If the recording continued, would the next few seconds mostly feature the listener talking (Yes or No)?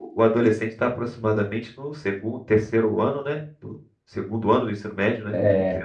Yes